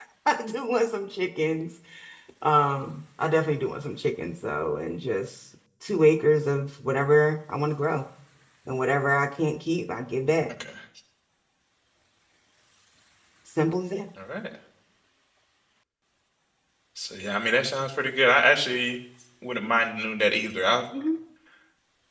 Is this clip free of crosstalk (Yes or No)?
Yes